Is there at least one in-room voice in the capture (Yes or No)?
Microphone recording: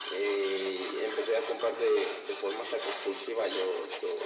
No